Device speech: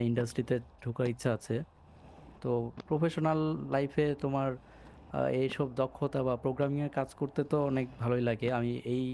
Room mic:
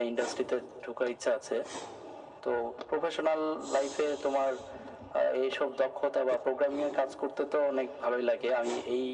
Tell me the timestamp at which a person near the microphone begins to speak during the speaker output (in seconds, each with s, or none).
none